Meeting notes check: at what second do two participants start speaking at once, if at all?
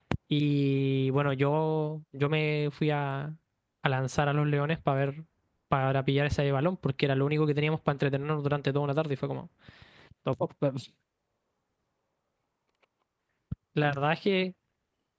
none

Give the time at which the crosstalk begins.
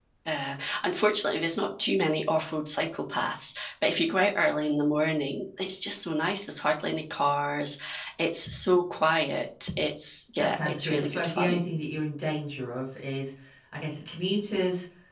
10.4 s

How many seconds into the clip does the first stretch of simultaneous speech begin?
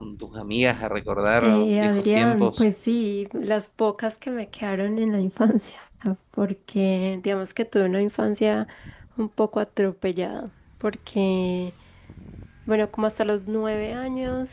1.4 s

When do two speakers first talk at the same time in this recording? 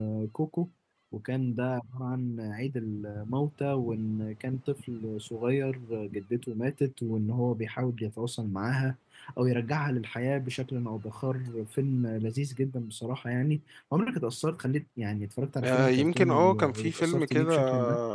15.6 s

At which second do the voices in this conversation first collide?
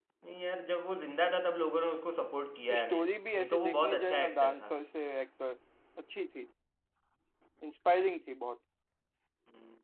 2.5 s

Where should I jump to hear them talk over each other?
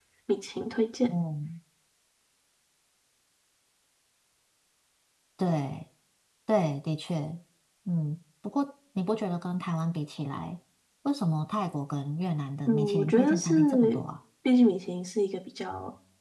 12.7 s

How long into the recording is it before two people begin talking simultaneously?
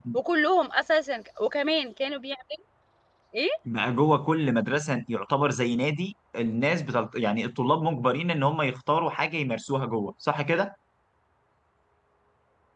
none

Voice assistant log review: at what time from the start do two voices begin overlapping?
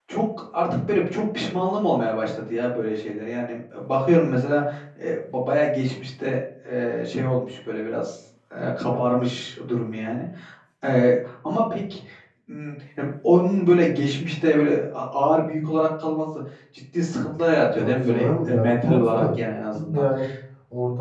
17.8 s

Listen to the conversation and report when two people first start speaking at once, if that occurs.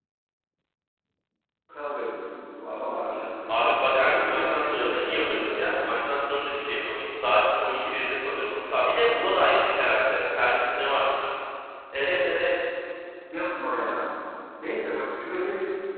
3.5 s

